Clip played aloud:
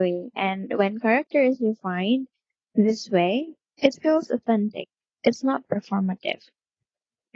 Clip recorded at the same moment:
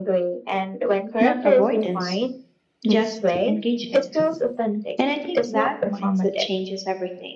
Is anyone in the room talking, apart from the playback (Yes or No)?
Yes